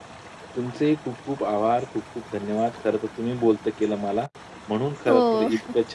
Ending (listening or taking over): listening